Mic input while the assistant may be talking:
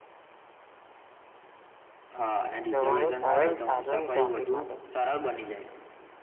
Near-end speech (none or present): present